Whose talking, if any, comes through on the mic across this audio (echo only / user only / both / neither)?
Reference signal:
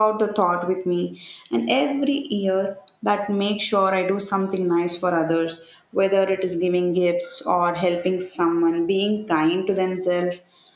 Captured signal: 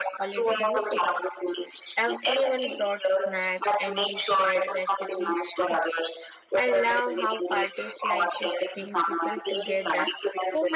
both